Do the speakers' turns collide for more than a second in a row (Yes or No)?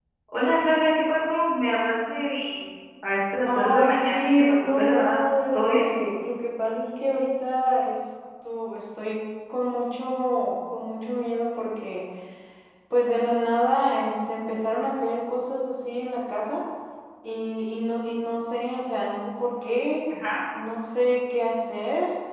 Yes